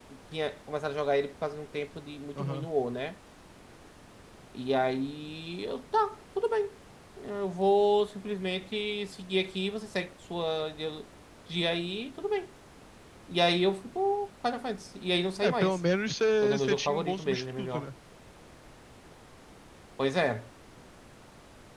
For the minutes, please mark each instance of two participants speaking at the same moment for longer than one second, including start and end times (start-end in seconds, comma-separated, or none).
16.4-17.8